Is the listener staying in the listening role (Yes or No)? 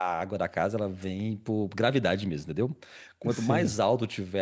Yes